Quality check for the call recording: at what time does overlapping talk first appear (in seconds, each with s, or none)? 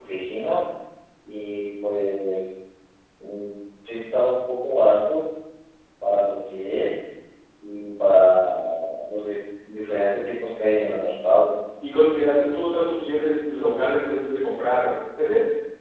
none